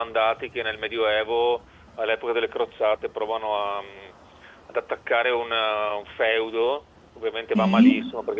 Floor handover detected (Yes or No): No